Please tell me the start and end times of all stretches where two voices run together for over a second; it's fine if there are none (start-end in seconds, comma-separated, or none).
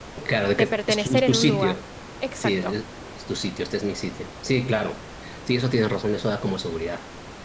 0.6-1.8